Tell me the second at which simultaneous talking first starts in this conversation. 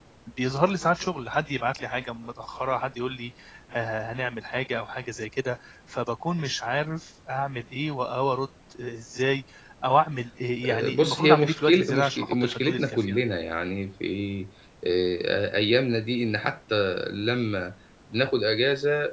11 s

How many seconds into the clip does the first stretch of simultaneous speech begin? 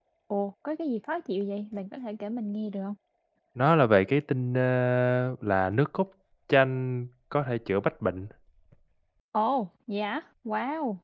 none

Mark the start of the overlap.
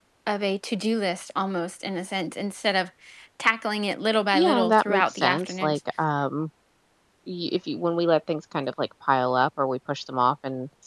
4 s

